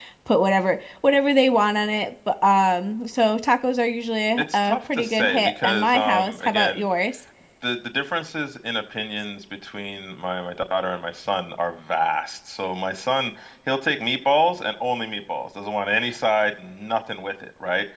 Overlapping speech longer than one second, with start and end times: 4.4-6.8

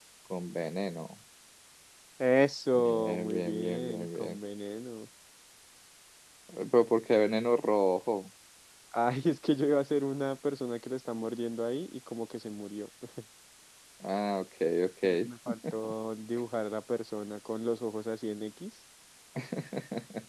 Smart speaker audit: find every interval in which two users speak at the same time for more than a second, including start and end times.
2.8-4.4

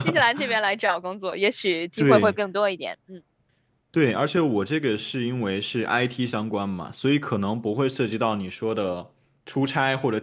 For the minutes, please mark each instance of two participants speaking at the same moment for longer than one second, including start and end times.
none

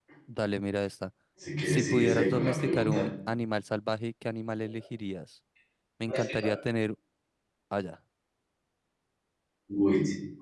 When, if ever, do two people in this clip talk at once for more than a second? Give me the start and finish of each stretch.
1.6-3.0

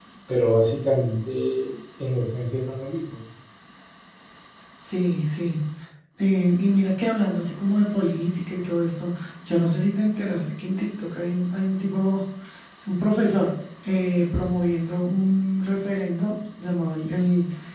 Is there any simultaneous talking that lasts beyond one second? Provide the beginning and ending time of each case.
none

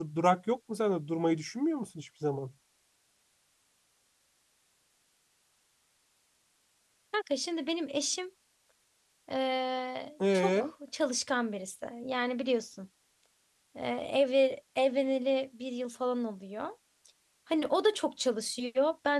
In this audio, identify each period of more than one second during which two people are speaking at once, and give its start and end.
none

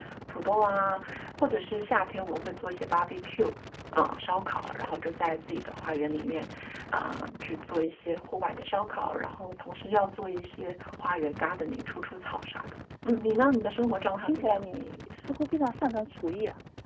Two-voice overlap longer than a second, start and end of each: none

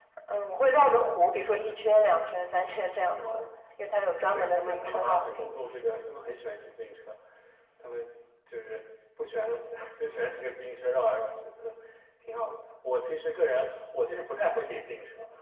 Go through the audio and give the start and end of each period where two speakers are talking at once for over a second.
4.3-5.8

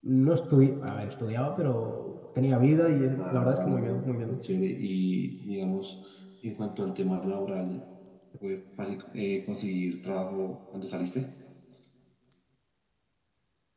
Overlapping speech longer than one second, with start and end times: 3.2-4.4

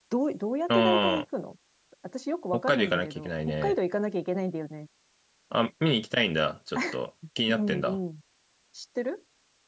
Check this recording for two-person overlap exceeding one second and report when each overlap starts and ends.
2.5-3.8

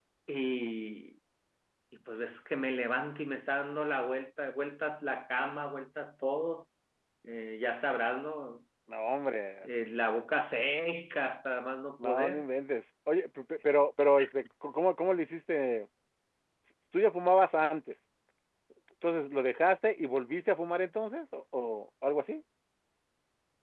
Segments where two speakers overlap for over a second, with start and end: none

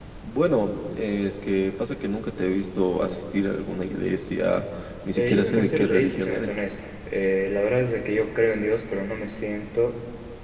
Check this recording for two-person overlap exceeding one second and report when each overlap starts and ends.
5.2-6.5

